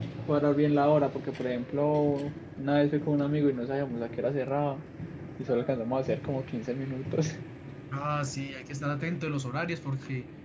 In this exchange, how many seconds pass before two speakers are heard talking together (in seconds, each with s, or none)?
none